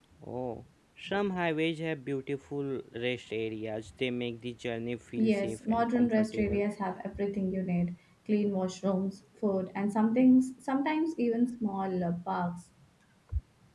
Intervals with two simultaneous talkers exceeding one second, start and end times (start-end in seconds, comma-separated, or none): 5.2-6.6